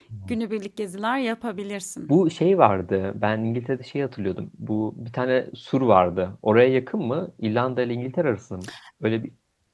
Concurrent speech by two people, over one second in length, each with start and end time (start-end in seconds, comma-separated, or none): none